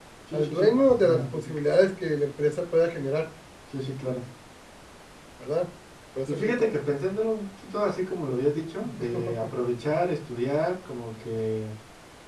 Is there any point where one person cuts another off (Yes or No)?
Yes